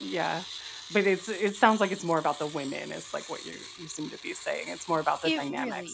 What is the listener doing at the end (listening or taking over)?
taking over